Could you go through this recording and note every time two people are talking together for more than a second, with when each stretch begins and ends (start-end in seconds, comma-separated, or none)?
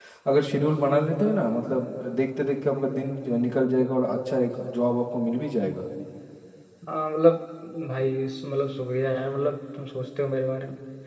none